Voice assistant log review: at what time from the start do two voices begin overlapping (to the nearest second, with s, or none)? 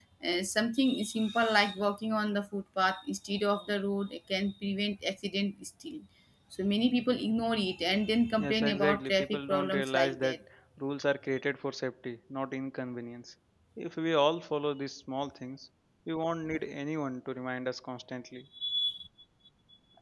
8 s